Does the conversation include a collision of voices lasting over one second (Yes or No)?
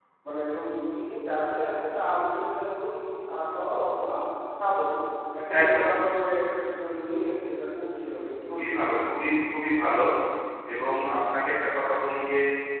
No